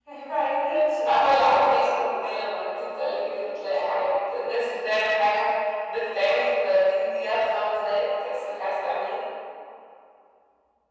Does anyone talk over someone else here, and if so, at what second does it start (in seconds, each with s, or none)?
1.0 s